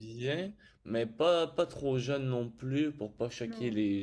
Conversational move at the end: listening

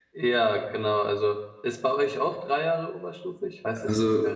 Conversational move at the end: taking over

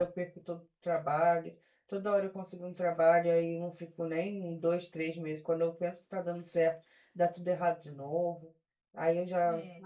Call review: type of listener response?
listening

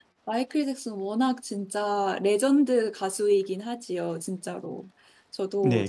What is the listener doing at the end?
taking over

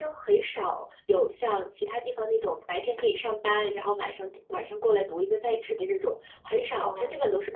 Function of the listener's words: listening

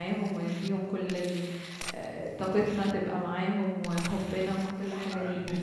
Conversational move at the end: taking over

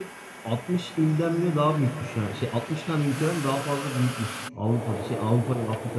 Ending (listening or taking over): listening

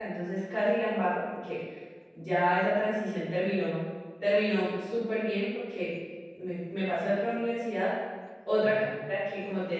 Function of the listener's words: listening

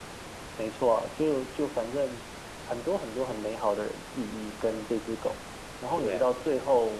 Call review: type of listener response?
listening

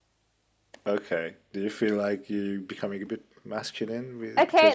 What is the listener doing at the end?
taking over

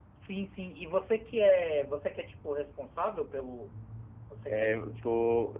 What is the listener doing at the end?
taking over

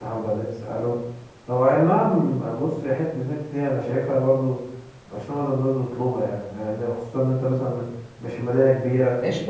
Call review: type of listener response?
taking over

